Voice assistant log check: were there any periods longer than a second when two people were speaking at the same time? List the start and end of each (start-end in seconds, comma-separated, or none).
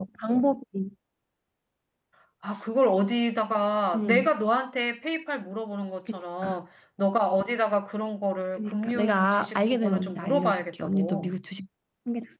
8.6-11.3